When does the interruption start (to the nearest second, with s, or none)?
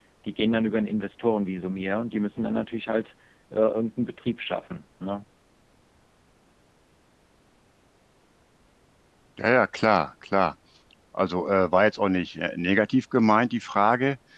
none